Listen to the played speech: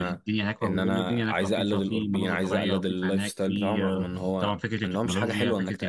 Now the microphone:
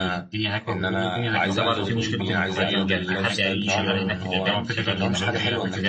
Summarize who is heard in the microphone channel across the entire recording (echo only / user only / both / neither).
both